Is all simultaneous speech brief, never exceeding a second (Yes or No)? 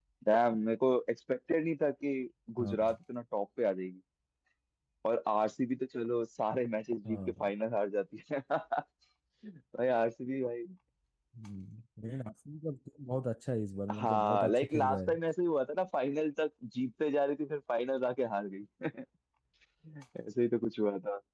No